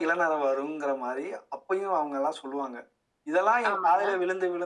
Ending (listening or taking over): listening